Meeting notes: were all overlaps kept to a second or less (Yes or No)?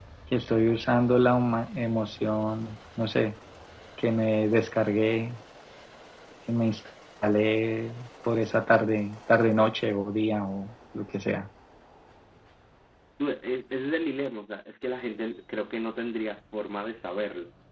Yes